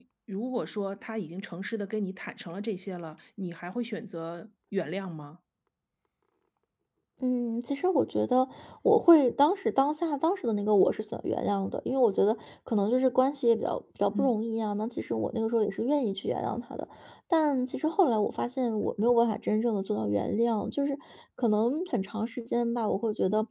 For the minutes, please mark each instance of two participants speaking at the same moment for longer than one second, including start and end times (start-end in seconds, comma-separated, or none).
none